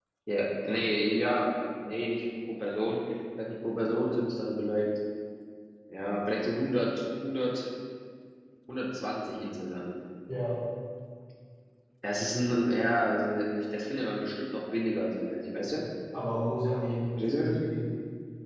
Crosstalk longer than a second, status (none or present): none